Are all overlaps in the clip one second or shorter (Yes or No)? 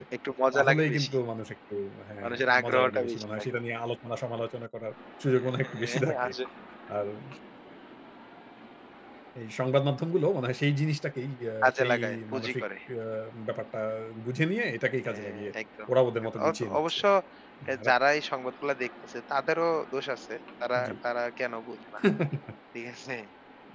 No